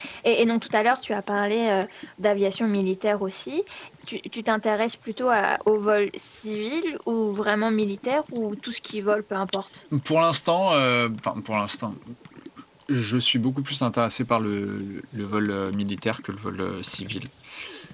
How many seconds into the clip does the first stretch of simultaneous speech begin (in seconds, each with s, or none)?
none